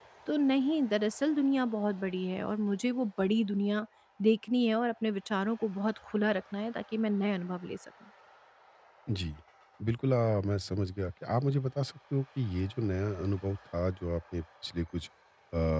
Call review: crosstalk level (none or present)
none